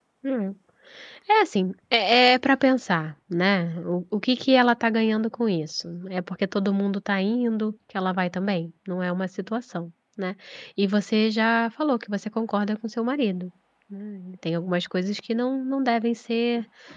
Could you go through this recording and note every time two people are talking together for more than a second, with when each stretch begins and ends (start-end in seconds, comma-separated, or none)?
none